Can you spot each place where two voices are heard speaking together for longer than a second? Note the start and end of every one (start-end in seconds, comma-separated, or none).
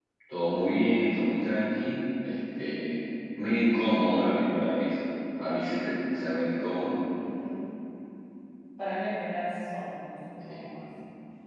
none